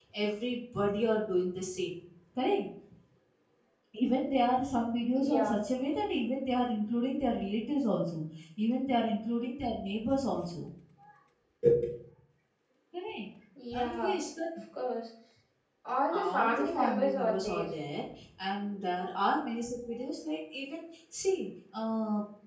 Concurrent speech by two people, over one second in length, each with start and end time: 16.1-17.7

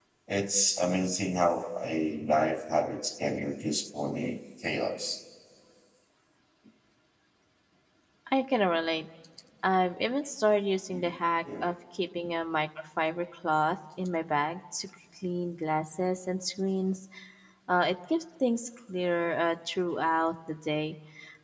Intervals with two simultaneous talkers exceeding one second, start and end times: none

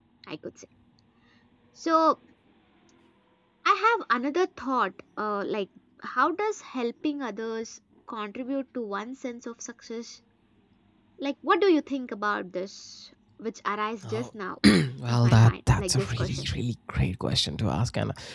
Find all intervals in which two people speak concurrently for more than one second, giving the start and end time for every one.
15.1-16.4

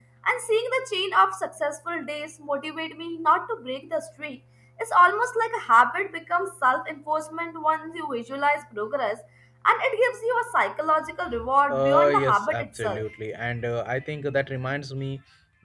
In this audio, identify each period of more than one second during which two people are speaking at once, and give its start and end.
11.7-13.0

